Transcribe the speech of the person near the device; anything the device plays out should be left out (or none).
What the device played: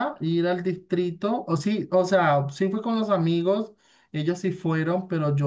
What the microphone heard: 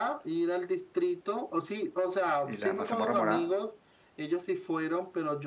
y, y la mazamorra morada?